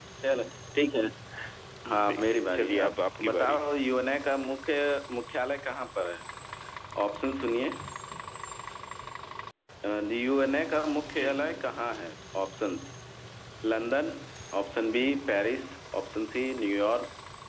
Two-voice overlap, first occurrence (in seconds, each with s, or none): 2.1 s